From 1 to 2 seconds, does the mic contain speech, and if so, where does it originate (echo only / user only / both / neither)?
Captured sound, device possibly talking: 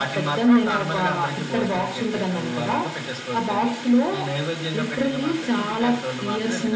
echo only